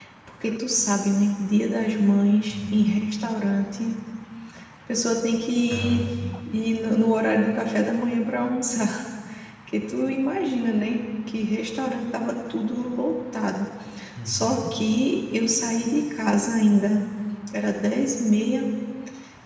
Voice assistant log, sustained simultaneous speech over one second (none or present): none